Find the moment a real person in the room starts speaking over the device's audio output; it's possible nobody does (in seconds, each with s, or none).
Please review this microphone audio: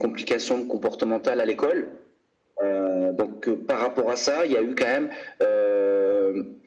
none